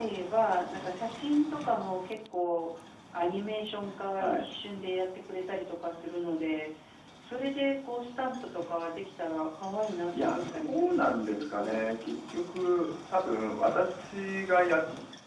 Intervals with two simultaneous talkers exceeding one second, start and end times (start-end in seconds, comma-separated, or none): 10.2-12.2